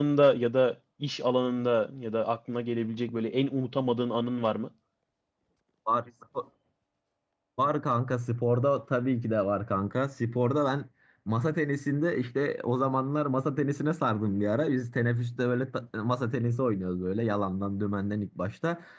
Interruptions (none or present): none